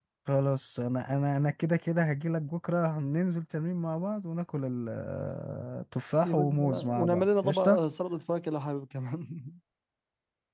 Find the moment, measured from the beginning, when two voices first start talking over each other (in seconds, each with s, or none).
6.2 s